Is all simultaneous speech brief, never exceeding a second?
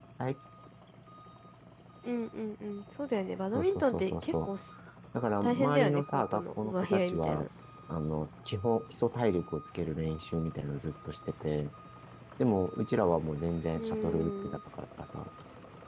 No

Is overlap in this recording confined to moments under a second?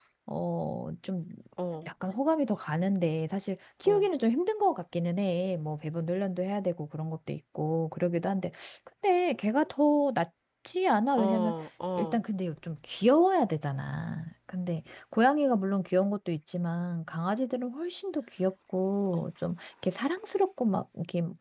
Yes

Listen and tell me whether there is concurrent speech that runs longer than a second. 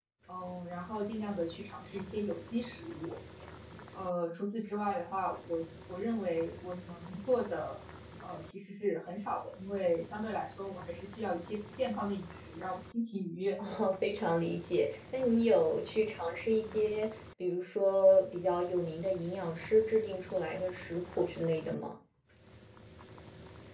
No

